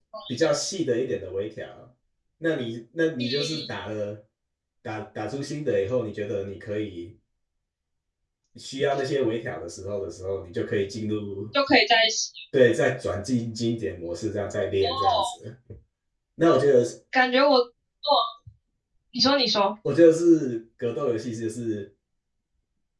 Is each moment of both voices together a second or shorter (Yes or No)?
Yes